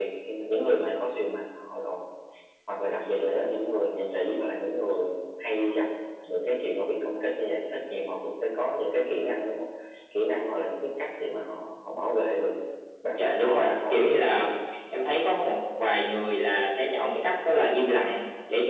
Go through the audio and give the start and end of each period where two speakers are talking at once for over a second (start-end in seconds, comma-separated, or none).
13.2-14.5